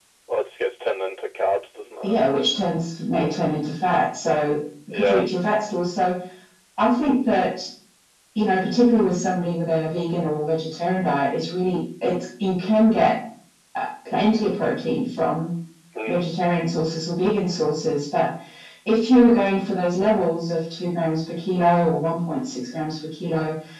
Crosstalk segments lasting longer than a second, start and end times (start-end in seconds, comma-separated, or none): none